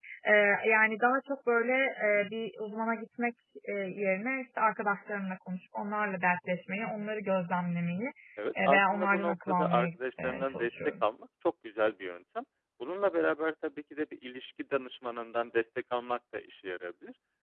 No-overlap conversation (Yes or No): No